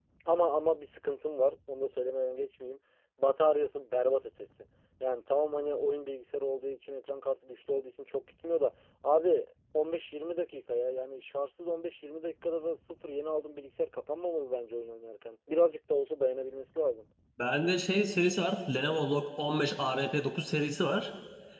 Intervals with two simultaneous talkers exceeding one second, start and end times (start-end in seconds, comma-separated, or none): none